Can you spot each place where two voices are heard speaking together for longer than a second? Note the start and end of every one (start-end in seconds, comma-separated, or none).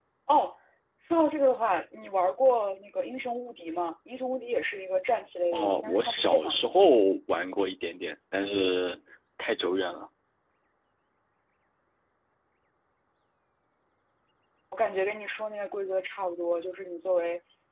5.5-6.9